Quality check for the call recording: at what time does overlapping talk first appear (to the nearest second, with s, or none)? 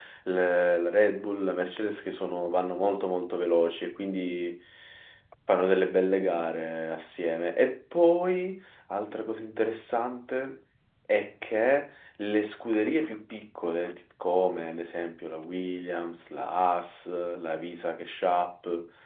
none